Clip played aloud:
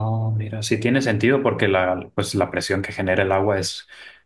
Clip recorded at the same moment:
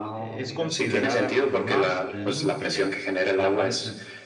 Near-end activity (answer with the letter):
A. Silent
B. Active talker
B